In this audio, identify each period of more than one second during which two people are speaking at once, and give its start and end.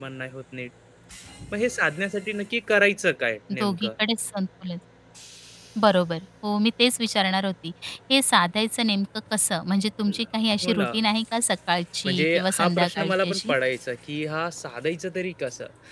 12.0-13.5

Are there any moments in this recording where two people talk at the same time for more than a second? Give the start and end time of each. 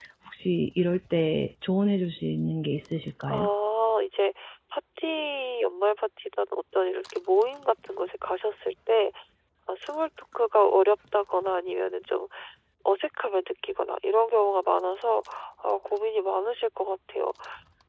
none

